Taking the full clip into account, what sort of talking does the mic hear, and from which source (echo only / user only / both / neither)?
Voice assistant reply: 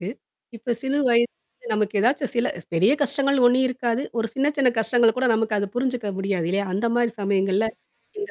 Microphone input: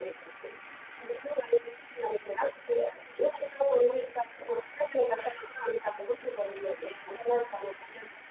echo only